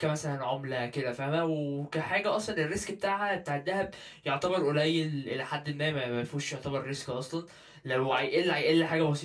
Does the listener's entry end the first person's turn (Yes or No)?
No